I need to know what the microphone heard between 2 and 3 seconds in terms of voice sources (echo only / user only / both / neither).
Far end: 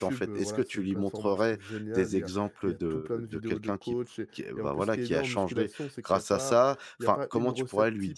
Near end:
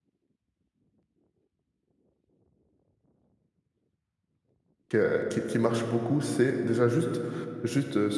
neither